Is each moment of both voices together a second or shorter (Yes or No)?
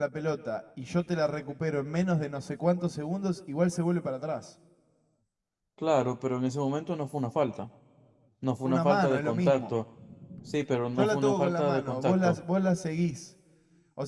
No